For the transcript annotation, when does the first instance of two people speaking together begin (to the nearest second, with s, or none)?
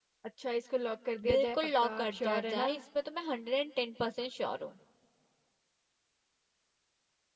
1 s